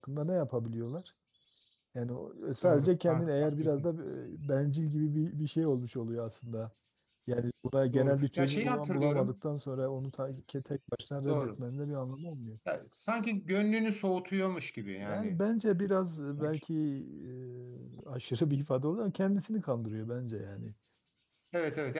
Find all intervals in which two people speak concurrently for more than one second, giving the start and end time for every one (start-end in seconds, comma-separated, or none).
2.6-3.9, 7.9-9.3